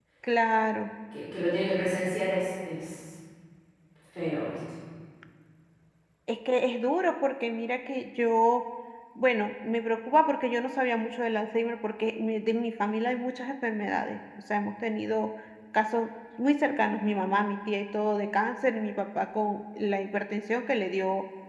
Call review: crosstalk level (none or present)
none